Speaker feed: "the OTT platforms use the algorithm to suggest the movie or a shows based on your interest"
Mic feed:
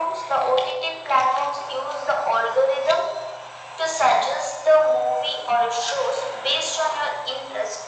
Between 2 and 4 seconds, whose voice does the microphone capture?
echo only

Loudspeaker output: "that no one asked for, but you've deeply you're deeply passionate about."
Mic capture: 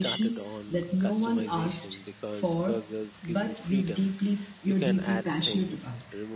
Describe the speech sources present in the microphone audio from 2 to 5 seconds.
both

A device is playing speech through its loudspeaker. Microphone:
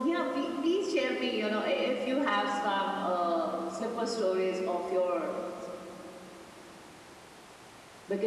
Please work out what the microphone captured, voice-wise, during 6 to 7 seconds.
neither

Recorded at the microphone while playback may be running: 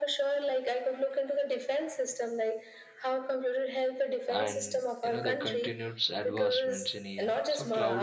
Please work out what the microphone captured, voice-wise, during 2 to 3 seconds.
echo only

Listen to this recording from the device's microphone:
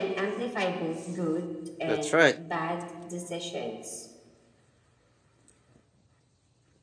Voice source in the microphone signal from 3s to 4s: echo only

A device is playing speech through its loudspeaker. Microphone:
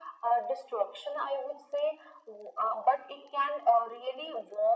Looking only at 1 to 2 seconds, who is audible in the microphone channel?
echo only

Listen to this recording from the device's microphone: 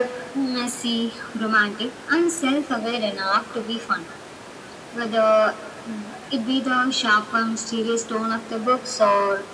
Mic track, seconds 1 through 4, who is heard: echo only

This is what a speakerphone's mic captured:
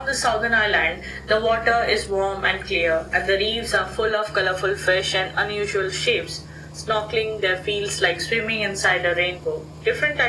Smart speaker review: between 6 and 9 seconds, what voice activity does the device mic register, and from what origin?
echo only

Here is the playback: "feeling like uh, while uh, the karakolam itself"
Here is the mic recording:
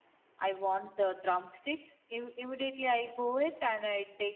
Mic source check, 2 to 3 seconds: user only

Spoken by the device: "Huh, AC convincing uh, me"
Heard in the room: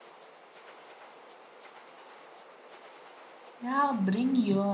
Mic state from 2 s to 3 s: neither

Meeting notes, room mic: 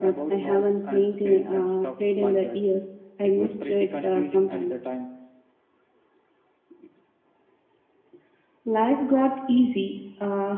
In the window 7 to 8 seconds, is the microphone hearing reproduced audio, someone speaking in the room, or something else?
neither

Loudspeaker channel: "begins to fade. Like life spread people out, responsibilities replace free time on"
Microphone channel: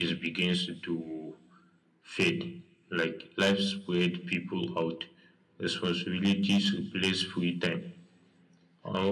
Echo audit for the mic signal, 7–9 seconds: echo only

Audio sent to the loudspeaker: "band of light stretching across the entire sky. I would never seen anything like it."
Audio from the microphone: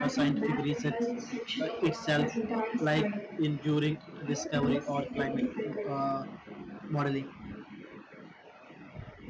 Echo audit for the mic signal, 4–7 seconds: both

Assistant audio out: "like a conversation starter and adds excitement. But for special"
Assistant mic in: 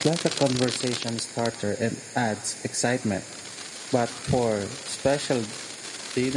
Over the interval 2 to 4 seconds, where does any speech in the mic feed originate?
echo only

